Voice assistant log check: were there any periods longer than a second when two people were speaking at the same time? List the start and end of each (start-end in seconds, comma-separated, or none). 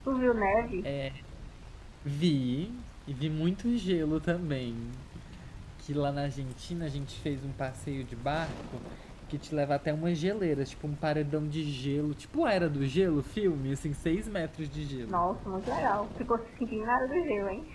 none